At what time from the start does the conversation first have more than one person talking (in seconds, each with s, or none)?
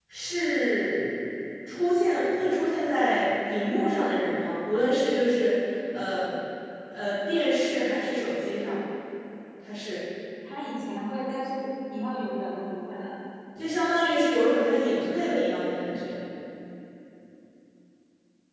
none